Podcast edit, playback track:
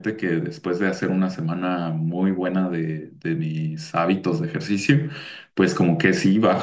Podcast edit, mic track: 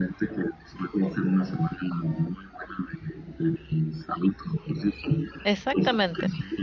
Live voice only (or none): Exactamente.